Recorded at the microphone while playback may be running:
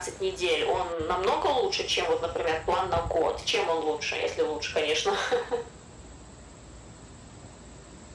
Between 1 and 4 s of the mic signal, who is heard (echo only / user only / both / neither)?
echo only